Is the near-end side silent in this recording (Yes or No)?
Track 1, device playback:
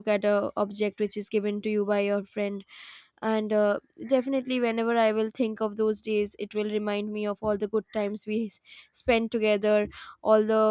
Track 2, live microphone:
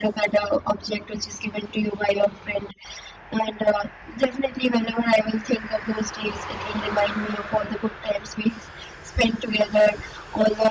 Yes